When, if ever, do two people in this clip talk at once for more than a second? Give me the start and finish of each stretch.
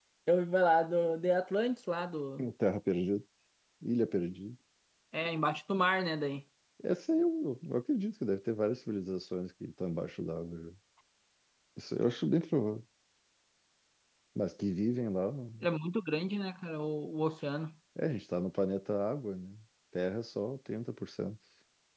none

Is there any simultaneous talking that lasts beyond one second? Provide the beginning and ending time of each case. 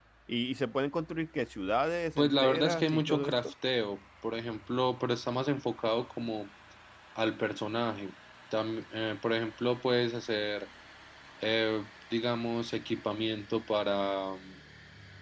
2.2-3.5

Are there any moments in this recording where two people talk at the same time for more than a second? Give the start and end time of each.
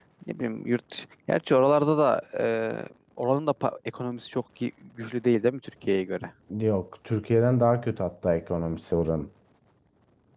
none

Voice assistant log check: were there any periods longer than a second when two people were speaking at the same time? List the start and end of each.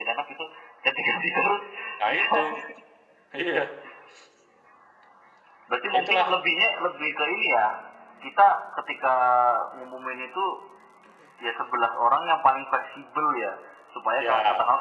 none

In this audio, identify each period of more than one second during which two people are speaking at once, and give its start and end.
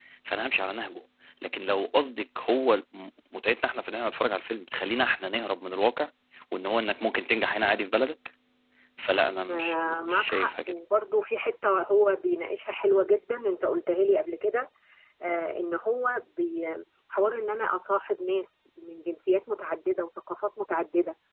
9.5-10.7

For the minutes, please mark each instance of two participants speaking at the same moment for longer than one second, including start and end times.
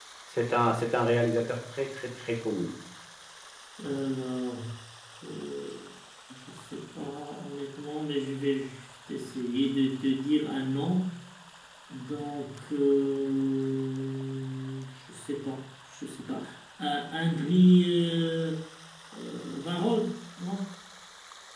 none

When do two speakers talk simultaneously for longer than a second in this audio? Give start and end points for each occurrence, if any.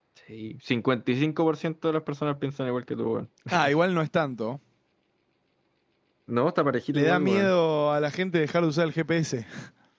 none

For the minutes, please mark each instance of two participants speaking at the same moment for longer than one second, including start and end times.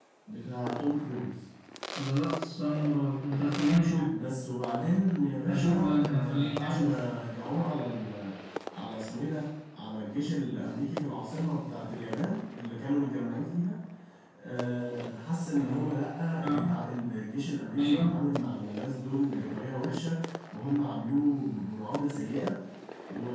5.5-6.9

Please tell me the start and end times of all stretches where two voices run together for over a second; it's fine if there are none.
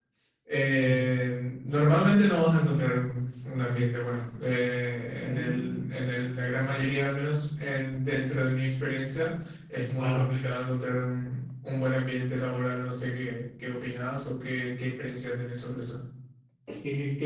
5.2-6.7

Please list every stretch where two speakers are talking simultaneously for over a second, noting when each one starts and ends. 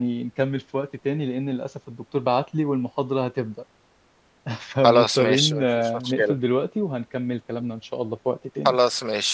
4.8-6.3

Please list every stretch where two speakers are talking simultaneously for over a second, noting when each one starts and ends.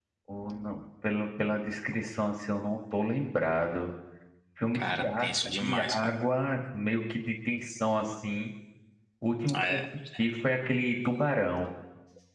4.7-6.1

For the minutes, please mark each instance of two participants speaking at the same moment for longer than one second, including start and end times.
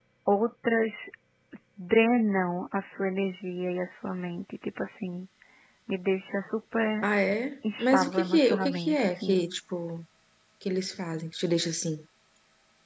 7.8-9.4

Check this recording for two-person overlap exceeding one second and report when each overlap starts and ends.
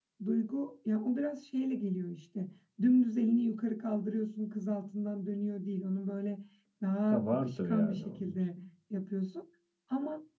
7.1-8.5

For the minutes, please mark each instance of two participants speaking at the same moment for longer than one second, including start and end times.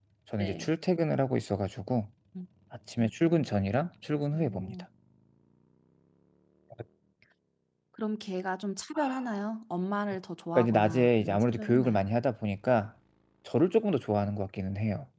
10.5-12.0

